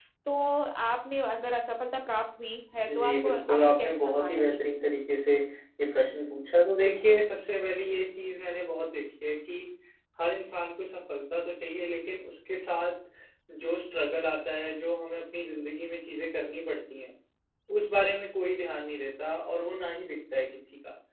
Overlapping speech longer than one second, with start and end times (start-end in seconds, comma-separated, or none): 2.8-4.6